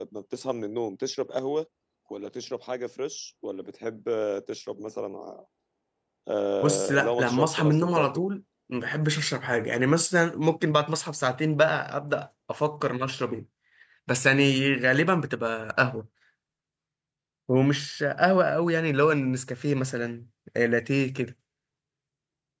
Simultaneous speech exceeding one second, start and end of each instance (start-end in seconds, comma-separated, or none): 6.6-8.1